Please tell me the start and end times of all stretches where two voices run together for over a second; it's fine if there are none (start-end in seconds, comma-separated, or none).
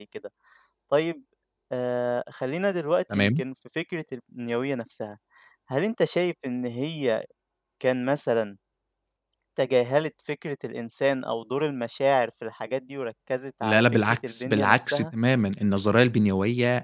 13.6-15.1